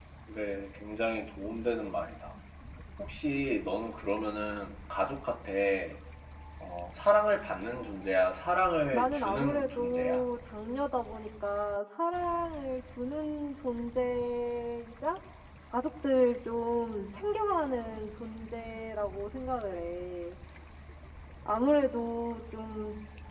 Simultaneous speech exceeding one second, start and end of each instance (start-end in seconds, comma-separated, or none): 8.9-10.3